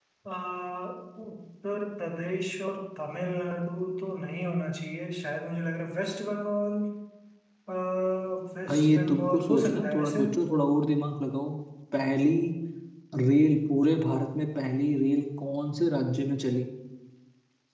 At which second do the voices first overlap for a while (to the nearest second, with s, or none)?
9 s